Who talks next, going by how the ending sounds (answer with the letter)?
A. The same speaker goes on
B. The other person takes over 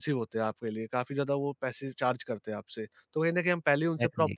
A